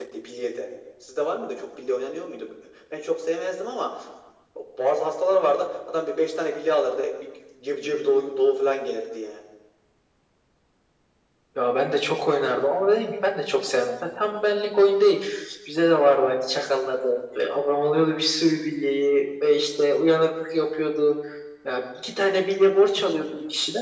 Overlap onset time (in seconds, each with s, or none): none